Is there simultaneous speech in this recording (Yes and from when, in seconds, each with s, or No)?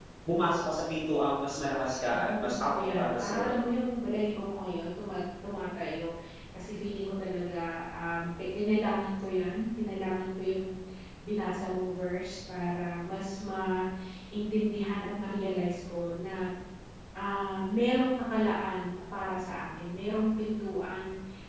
Yes, from 2.1 s